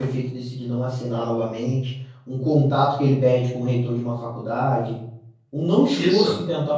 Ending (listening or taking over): listening